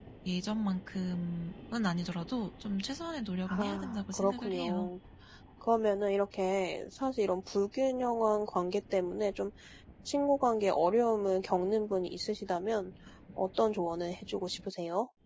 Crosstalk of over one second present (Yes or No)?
Yes